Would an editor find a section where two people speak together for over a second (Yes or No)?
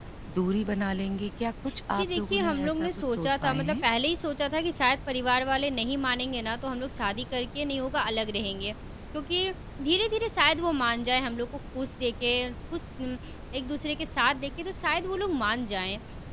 Yes